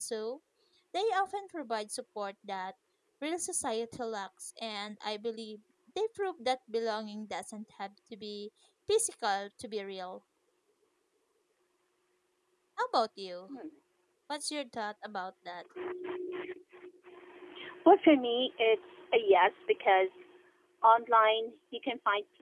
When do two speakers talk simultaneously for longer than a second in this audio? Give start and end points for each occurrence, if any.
none

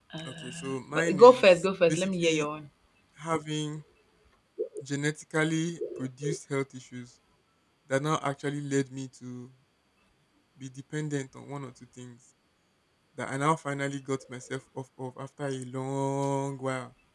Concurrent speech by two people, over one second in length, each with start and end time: 0.9-2.5

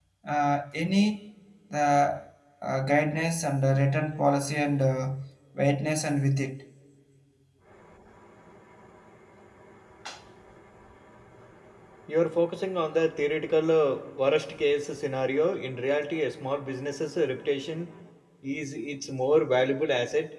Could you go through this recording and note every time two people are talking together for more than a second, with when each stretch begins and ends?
none

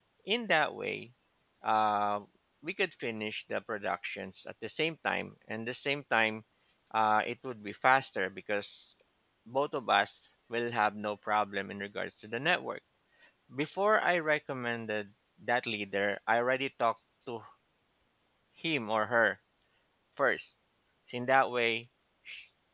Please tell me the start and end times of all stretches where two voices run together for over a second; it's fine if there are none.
none

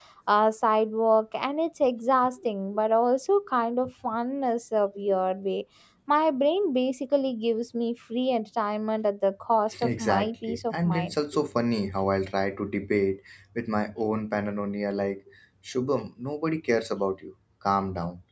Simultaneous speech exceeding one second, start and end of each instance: 9.8-11.2

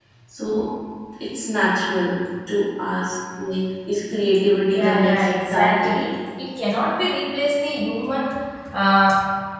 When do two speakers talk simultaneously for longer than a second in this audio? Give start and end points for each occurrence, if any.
4.7-6.0

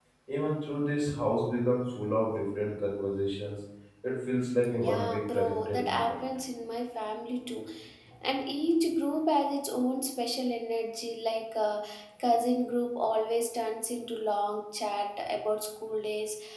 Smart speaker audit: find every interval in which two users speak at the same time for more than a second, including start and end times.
4.7-6.2

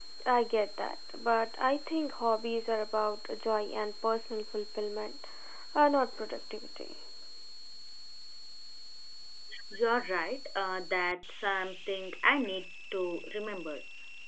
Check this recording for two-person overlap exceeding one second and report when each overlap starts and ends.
none

